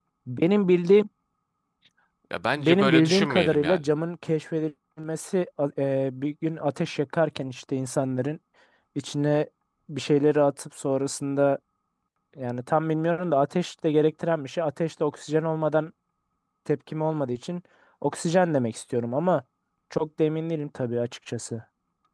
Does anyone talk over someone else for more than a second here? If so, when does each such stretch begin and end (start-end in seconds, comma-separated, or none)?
2.6-3.8